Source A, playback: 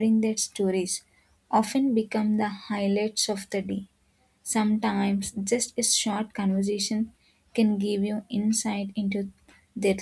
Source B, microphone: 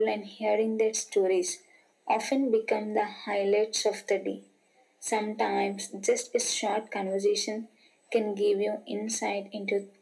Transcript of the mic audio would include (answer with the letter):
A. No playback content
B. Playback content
B